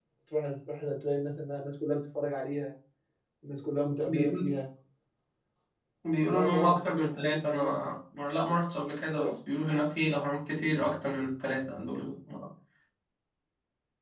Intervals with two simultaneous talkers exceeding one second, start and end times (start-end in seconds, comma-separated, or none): 6.2-7.9